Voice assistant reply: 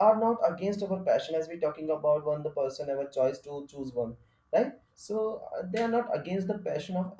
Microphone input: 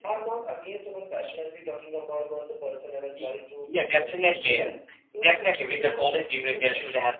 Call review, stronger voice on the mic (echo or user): user